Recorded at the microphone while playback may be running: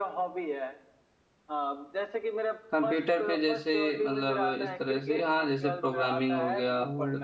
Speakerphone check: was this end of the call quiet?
No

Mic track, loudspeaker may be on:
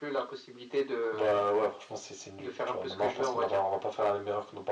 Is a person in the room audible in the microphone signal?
No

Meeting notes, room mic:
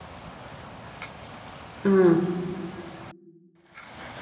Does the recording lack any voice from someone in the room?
No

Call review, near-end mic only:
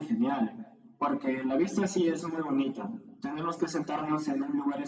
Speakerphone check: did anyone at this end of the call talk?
No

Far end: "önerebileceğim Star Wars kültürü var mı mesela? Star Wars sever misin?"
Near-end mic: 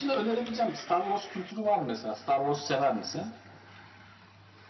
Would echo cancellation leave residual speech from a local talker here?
No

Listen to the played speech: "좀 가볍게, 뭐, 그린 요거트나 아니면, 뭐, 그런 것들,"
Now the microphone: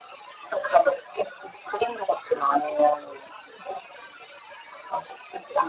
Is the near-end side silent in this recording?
Yes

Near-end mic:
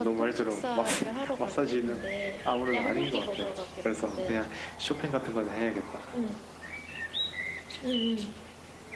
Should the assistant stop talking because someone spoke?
No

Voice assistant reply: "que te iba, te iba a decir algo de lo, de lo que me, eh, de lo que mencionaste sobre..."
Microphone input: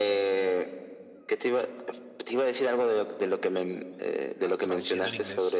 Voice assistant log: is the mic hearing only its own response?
No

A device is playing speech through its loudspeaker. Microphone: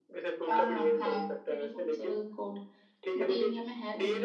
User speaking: Yes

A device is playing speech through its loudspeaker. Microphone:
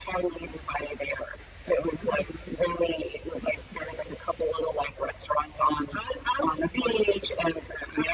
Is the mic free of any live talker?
Yes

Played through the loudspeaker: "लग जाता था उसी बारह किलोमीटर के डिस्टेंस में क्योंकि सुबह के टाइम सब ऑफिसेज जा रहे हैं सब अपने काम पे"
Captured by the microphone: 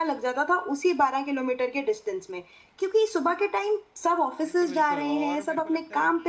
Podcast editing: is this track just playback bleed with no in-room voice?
No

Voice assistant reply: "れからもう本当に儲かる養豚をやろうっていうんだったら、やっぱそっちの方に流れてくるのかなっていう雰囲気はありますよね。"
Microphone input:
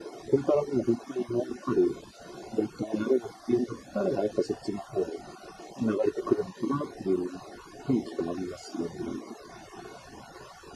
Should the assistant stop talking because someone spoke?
No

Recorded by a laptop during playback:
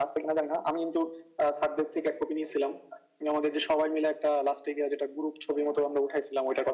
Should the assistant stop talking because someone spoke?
No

